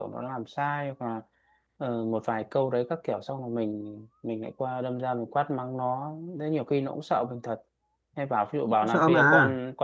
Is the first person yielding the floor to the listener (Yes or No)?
No